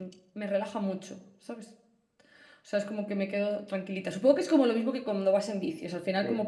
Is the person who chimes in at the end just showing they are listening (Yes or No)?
Yes